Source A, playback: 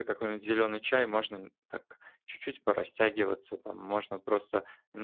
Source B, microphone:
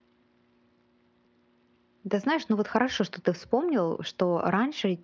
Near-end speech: present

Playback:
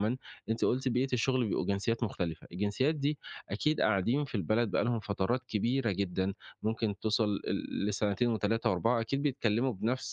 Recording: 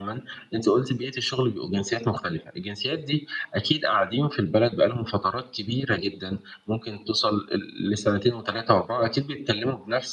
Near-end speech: none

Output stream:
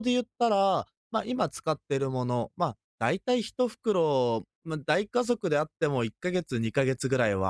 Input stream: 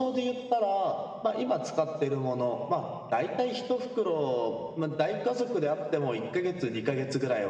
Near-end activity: none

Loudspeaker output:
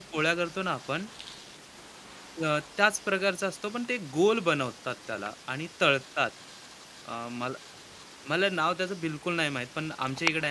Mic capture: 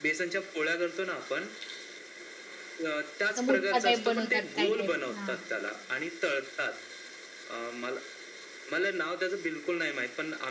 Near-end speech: present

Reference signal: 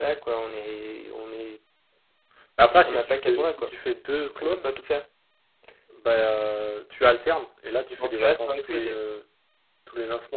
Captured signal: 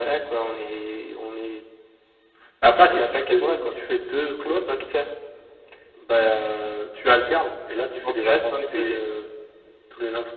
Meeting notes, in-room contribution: none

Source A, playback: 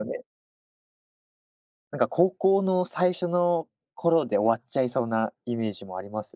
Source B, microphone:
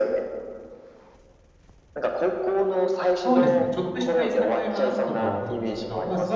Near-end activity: present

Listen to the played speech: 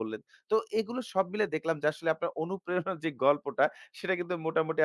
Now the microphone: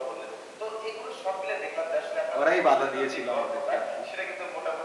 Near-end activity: present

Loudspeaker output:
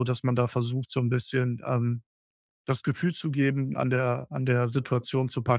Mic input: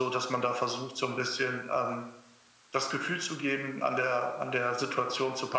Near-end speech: none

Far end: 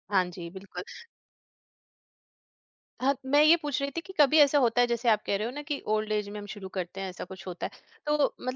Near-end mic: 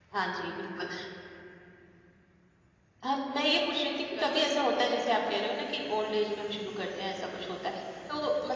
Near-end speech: present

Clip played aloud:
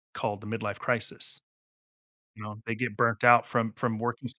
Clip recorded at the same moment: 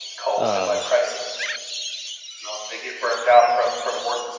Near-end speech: present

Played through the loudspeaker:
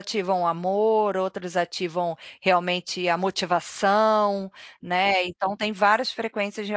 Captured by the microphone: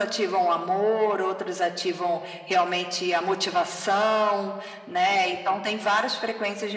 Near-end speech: none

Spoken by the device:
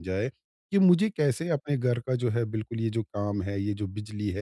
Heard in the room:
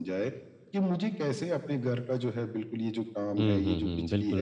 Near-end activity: present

